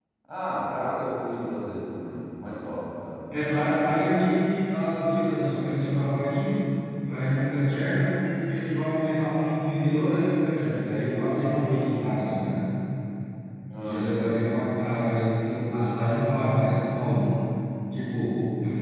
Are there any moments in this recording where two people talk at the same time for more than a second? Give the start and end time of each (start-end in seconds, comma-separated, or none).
none